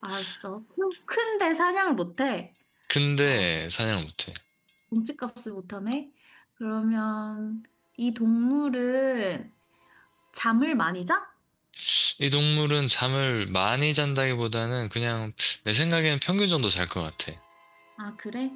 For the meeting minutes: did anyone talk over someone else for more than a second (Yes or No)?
No